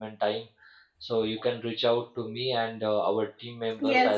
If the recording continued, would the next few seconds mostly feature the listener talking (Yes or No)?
No